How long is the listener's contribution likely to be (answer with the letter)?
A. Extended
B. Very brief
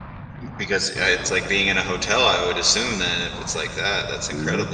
A